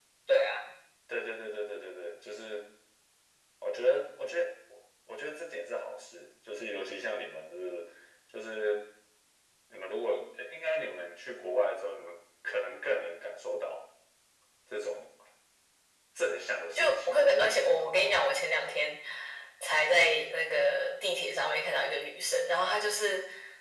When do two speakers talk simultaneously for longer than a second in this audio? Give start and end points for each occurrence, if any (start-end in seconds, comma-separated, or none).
16.8-18.1